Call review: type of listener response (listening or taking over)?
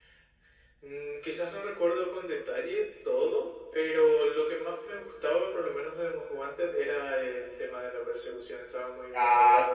taking over